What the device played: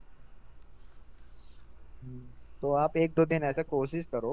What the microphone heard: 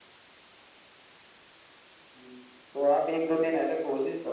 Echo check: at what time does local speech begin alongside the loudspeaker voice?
none

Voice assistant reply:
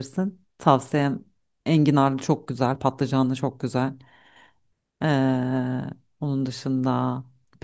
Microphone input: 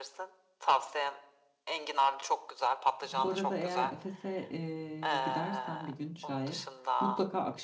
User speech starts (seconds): 3.0 s

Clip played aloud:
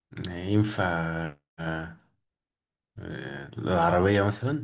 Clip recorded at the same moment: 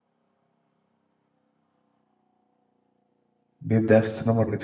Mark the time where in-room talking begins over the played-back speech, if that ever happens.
3.6 s

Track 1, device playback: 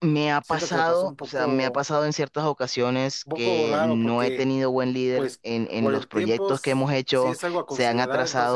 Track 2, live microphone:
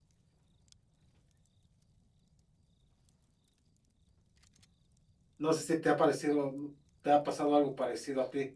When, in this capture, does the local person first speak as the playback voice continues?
5.4 s

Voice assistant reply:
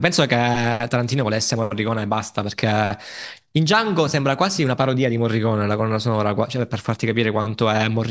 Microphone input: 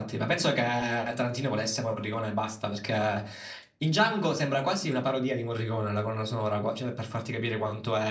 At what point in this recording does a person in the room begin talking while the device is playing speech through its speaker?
none

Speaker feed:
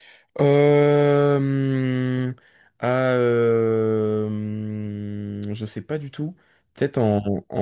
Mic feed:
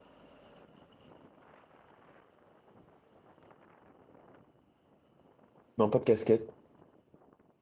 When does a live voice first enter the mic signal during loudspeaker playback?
5.8 s

